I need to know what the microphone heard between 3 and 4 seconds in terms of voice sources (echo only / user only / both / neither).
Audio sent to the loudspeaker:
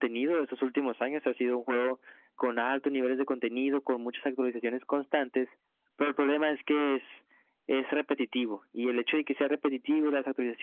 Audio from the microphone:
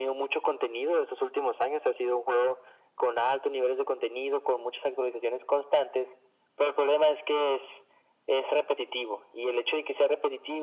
echo only